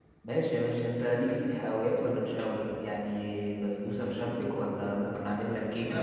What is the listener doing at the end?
taking over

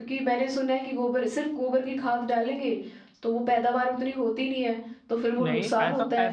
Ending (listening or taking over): taking over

